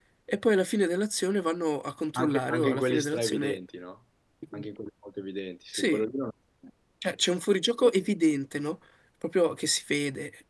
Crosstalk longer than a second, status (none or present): present